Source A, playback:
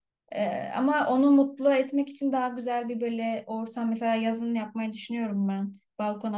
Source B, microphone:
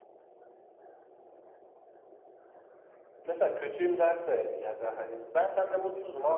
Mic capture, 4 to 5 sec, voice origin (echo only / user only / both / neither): user only